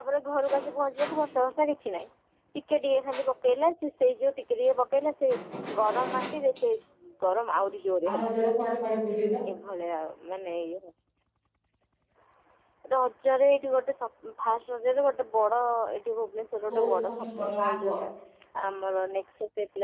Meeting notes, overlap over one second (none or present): present